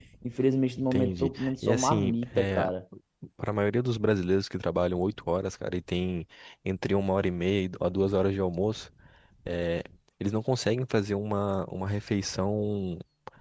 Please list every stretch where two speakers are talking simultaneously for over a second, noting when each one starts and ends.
0.8-2.7

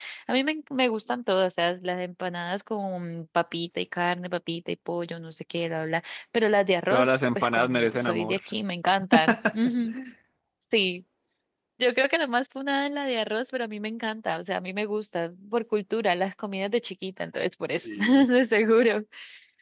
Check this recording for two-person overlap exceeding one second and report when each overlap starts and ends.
6.9-8.4

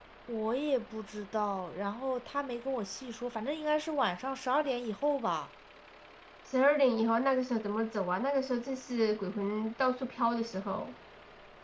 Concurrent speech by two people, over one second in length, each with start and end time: none

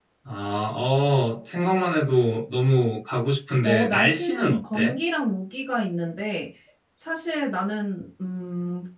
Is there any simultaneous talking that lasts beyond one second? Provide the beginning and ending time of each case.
3.6-5.0

